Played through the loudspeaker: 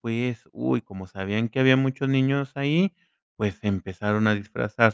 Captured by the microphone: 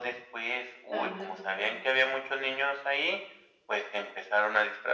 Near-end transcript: Ándale.

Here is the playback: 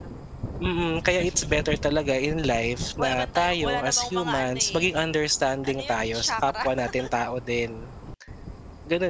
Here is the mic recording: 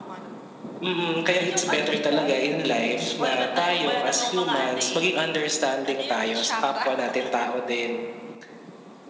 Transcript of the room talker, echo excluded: yung ano di ba? Yung

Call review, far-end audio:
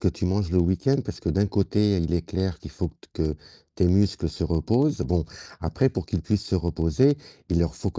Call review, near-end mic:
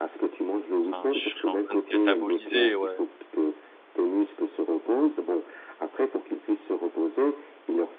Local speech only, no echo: enfin, je serais en train de cataboliser, ouais.

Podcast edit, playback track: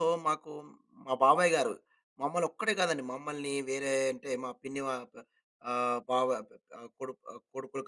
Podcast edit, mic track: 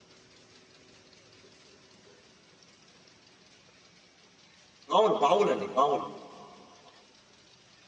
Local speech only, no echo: బావులు, బావులు అండి. బావులు.

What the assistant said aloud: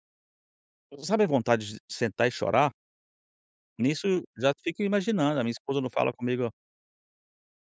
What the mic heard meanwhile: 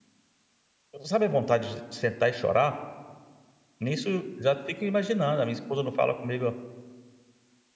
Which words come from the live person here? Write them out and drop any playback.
none

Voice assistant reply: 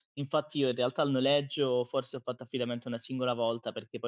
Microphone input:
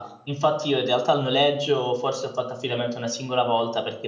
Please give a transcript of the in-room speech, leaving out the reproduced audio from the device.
none

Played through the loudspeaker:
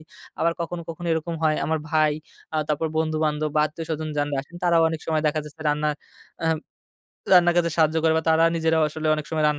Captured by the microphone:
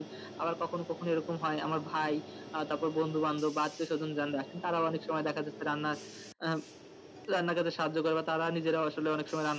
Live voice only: none

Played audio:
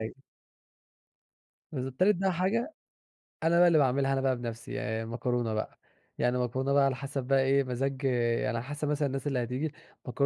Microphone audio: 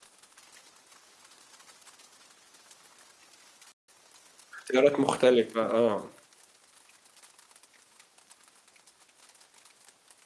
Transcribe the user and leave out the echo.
اختيارات مختلفة، آه.

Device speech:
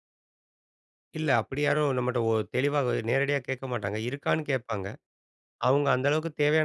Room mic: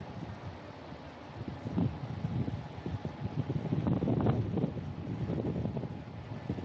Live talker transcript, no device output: none

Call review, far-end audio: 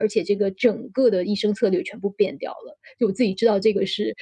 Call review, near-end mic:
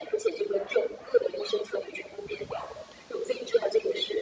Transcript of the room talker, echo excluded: none

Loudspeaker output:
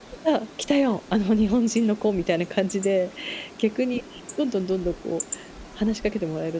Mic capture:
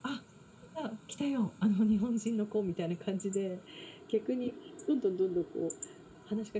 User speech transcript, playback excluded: none

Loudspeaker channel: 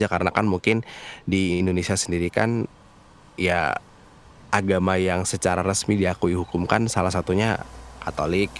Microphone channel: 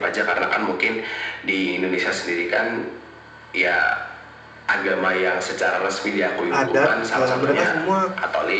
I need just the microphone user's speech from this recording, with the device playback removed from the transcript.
adat, eee, mereka semua,

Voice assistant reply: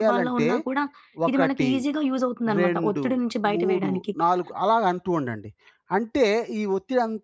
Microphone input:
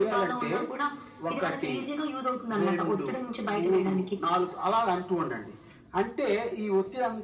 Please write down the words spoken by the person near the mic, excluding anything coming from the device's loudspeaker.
none

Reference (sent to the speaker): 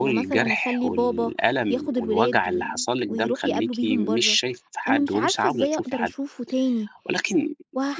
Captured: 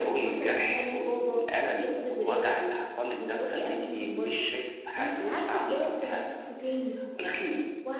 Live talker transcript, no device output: none

